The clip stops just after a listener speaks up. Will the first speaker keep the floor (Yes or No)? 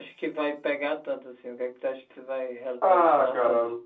No